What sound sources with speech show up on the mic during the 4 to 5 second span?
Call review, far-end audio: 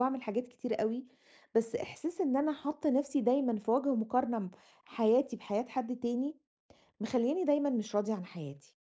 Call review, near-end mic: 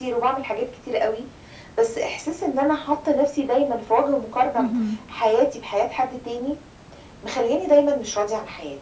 both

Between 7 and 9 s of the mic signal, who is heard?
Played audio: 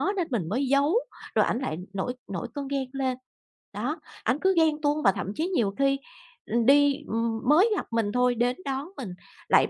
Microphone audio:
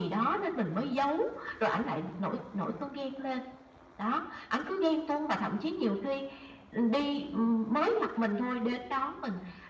echo only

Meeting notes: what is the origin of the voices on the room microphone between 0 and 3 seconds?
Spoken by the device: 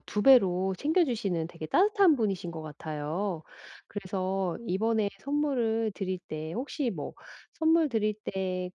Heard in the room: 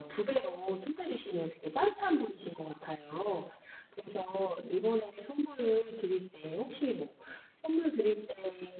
echo only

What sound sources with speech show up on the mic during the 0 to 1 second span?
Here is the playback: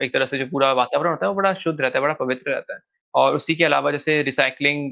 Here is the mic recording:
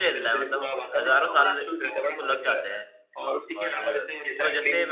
both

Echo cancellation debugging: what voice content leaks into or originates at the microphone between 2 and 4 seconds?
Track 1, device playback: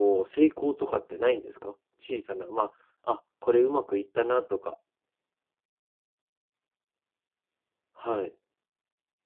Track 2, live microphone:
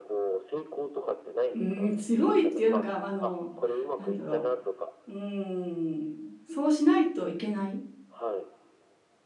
both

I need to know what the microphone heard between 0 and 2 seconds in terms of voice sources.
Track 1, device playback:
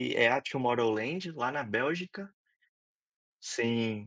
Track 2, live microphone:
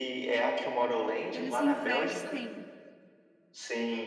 both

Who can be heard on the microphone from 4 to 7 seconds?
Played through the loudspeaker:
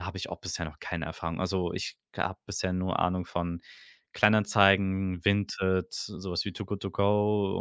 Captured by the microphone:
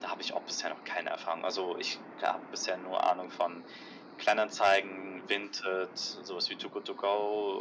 echo only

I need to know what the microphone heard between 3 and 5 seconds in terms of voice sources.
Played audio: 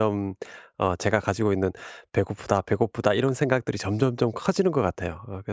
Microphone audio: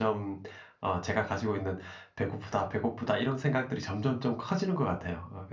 echo only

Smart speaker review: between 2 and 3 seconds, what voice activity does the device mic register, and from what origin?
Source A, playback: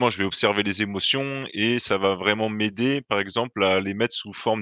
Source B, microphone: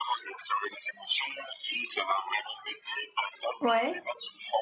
echo only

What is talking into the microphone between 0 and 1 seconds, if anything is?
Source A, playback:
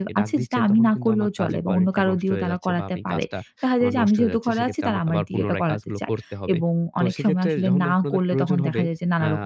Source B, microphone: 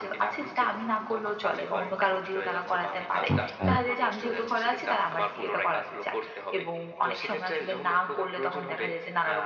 echo only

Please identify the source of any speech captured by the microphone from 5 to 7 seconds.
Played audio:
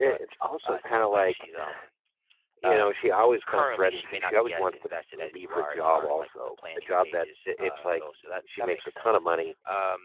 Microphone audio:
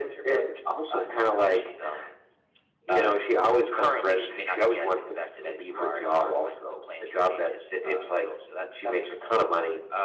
echo only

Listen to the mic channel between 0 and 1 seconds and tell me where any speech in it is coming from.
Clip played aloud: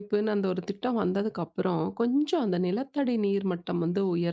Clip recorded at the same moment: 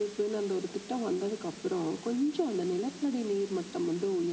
echo only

